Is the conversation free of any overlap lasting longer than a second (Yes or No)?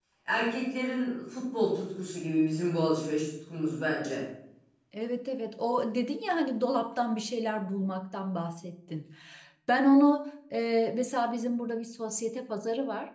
Yes